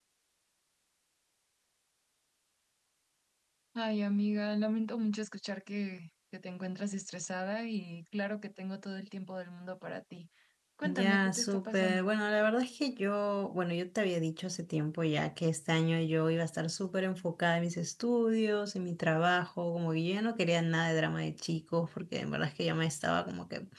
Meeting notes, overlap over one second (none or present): present